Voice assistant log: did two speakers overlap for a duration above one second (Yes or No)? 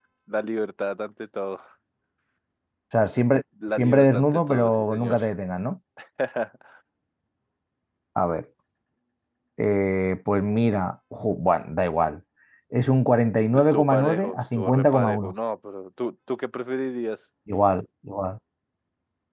Yes